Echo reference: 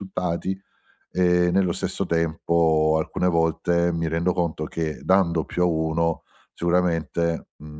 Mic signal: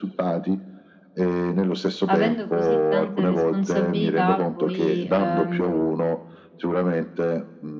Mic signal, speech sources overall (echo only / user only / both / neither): both